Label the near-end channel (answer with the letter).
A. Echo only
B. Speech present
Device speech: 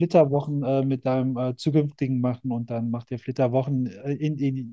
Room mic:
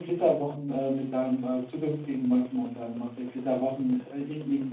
A